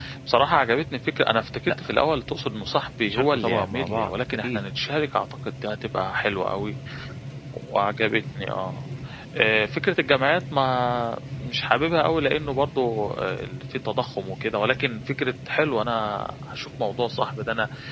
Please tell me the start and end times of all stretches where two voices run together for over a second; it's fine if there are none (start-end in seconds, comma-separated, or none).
3.0-4.6